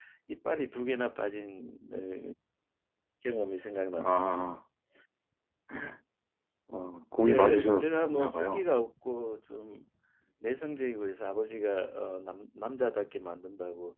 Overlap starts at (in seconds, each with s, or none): 7.3 s